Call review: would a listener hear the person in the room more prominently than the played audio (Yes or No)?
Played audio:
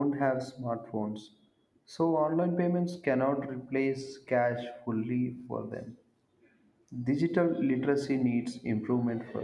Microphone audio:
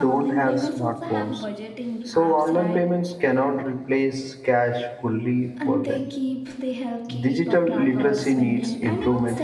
No